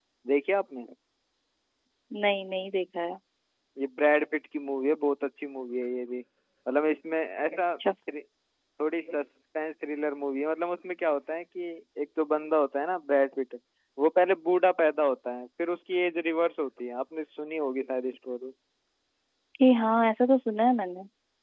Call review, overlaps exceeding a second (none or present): none